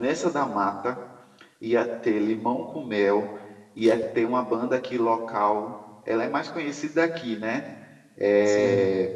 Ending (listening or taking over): listening